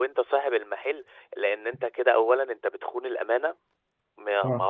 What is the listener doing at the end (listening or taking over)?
listening